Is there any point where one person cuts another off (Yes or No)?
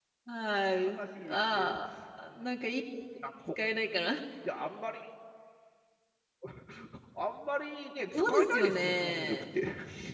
Yes